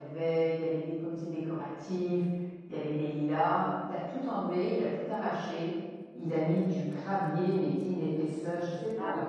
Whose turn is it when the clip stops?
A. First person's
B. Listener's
A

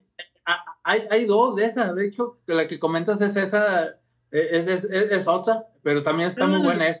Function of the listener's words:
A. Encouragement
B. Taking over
A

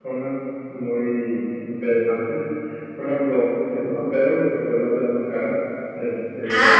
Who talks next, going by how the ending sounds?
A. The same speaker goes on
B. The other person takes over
B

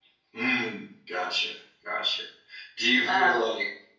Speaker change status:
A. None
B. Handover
A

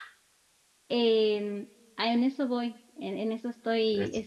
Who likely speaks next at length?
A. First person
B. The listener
A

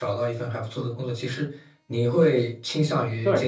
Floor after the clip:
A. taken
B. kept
B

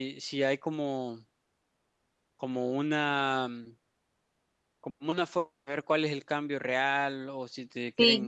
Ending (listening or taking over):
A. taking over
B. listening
A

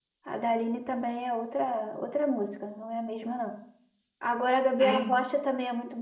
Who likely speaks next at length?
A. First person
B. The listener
A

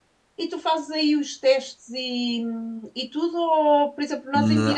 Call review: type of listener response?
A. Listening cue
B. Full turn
A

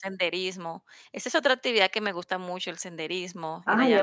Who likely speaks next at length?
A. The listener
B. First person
A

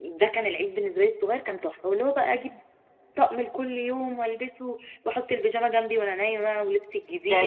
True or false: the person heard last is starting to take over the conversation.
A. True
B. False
A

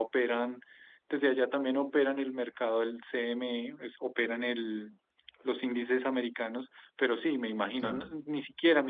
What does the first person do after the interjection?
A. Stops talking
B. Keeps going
B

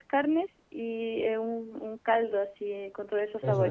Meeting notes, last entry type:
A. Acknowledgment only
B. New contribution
B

